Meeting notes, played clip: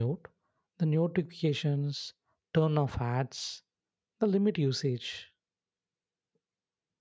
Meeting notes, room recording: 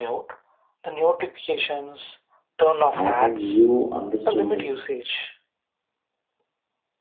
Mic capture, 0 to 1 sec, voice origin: echo only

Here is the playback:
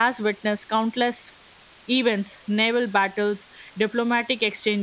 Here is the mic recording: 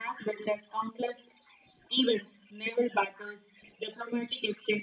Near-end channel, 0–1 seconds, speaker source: echo only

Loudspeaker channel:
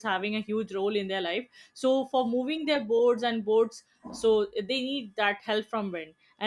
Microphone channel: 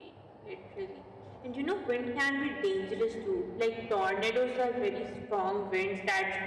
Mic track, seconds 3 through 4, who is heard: user only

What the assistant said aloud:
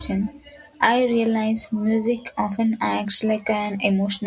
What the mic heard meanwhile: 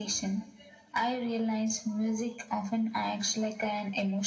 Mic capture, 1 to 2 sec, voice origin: echo only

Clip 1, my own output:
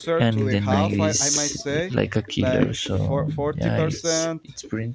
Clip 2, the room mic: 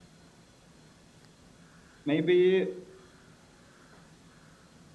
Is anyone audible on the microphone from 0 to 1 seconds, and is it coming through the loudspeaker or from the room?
neither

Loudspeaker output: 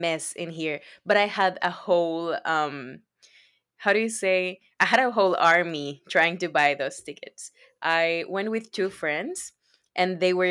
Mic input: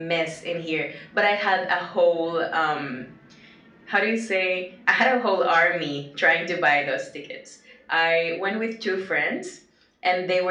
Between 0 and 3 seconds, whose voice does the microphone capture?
echo only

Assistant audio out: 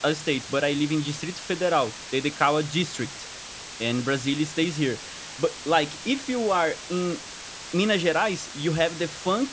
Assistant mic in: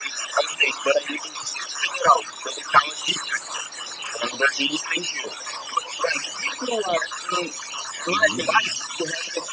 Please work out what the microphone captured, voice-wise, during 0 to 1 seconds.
echo only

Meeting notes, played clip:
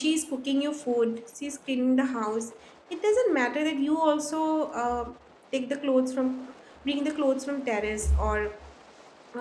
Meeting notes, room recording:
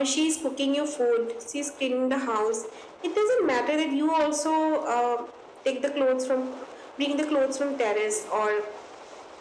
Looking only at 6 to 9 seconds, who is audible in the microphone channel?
echo only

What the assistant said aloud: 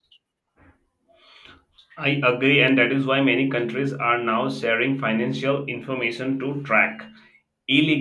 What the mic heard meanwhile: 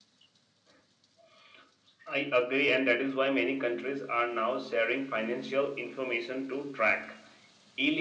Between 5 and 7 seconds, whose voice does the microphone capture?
echo only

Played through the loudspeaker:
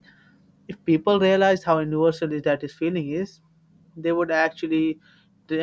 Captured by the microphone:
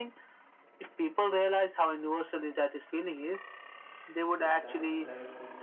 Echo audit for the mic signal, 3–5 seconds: both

